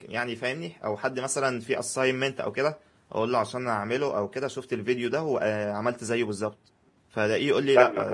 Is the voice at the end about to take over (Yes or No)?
No